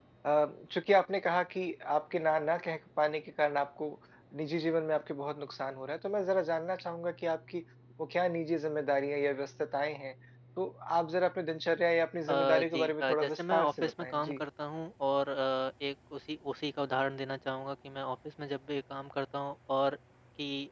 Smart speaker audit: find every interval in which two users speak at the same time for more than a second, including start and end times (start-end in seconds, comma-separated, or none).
12.3-14.4